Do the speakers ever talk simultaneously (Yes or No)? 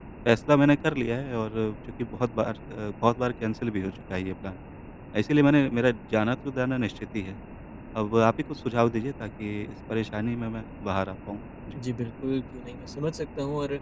No